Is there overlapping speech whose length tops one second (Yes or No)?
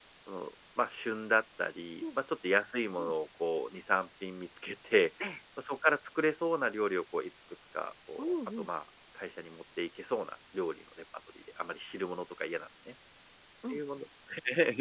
No